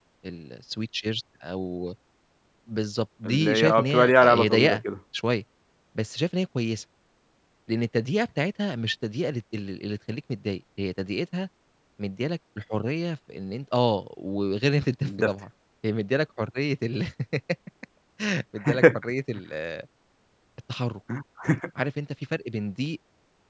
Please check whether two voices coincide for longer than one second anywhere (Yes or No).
Yes